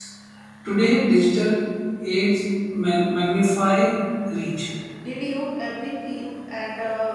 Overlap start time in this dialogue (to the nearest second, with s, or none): none